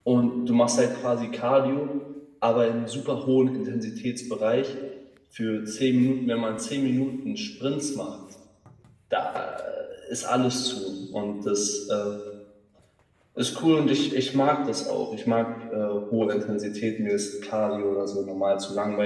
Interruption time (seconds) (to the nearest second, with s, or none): none